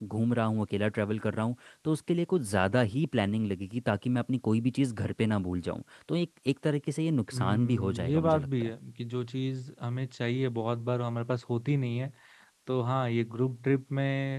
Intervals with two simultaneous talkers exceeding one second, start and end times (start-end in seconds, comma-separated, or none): 7.3-8.7